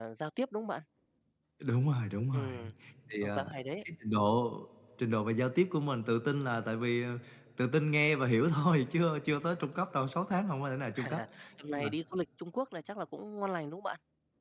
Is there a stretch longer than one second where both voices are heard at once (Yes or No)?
No